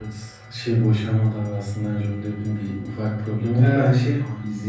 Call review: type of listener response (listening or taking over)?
listening